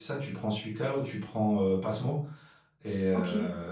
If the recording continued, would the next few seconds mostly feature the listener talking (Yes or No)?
No